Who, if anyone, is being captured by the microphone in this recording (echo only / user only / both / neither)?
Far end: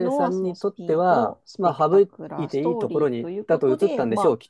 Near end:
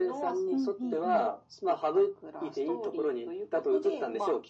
both